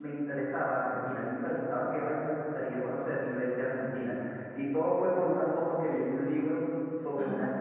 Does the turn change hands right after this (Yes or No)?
No